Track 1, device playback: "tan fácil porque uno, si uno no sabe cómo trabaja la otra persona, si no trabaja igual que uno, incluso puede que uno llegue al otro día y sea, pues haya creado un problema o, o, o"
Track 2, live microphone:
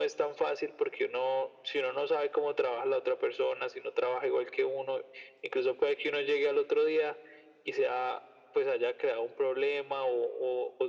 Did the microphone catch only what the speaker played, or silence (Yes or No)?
Yes